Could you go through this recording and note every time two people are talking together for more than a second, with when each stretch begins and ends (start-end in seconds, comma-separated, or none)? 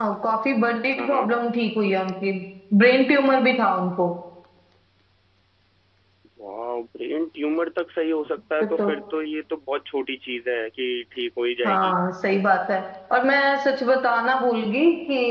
none